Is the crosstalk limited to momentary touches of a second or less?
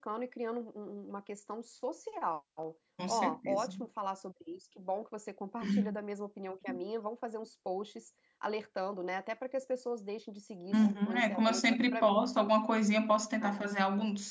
No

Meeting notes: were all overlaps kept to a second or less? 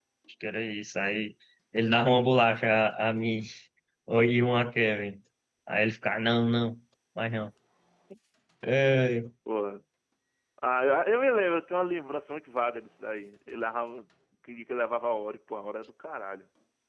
Yes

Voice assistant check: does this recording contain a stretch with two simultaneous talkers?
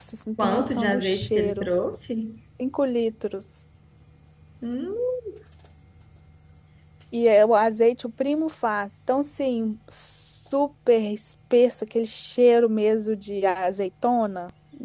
Yes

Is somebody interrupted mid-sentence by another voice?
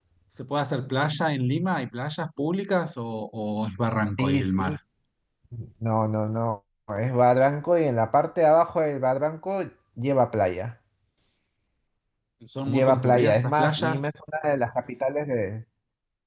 Yes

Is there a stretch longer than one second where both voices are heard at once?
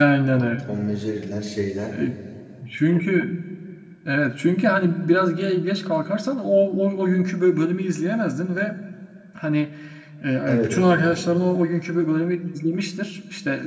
No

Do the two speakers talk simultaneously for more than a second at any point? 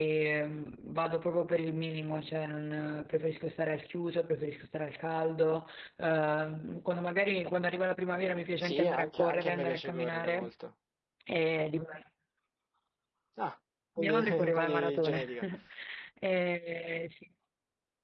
Yes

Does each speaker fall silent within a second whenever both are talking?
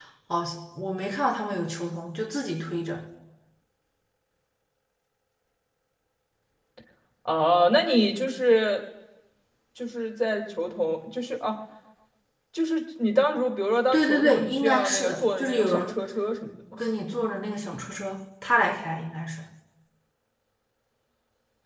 No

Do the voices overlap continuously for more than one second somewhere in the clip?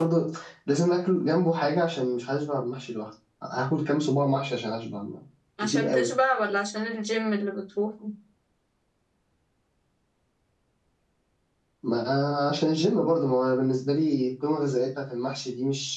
No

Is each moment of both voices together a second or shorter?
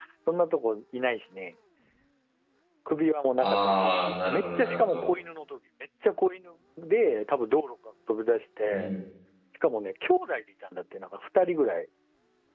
No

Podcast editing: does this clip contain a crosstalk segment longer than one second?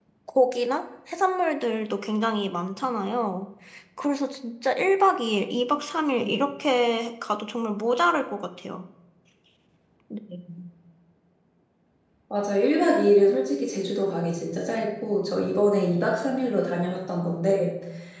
No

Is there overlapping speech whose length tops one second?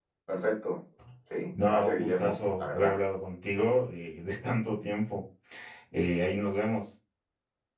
Yes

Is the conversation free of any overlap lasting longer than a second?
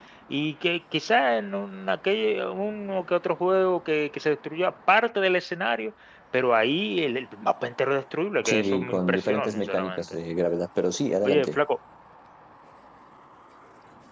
No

